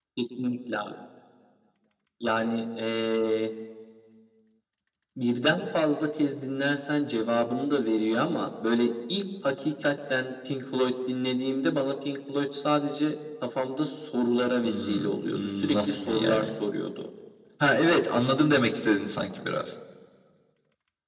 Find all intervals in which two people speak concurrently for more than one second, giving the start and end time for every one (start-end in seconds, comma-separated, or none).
14.6-16.5